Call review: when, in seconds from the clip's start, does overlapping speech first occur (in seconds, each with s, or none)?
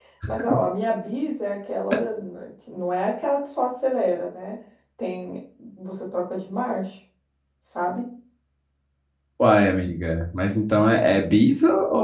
none